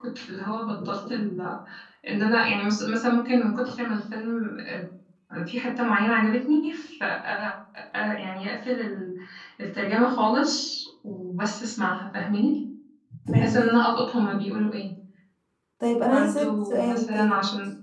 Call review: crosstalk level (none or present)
present